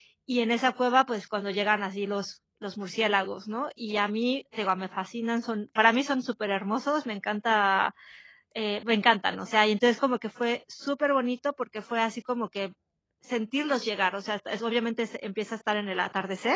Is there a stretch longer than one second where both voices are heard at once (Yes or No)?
No